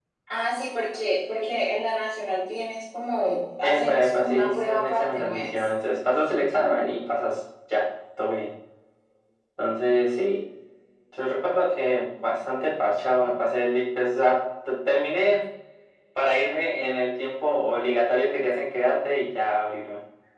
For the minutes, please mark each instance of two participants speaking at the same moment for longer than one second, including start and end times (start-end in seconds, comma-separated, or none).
3.6-5.7